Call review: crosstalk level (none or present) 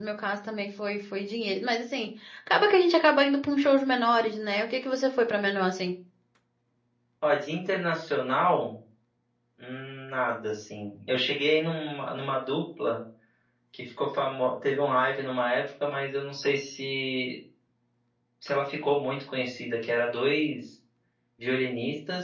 none